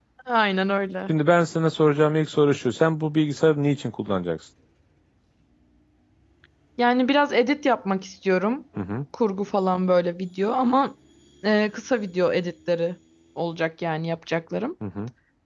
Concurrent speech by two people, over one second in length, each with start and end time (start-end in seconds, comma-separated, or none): none